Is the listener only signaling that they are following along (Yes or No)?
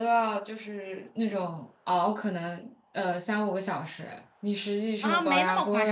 No